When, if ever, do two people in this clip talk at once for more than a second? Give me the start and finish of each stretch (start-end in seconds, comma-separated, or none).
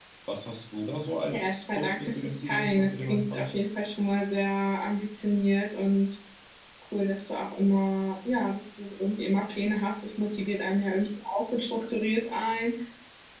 1.3-3.5